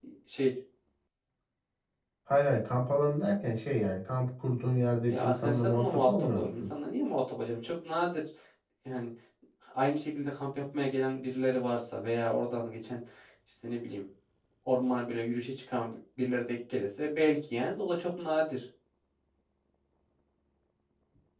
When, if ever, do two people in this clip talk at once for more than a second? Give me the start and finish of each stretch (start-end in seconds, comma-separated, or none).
5.0-6.7